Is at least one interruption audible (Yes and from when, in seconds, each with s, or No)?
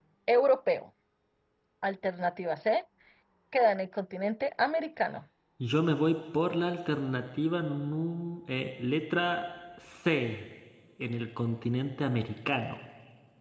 No